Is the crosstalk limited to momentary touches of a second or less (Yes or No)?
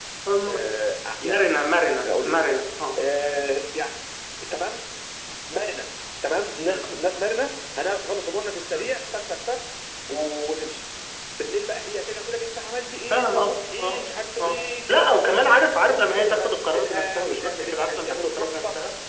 No